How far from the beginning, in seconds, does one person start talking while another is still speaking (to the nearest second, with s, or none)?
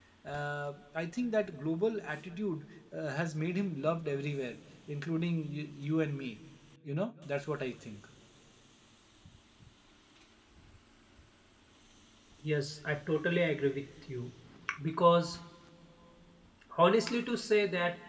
none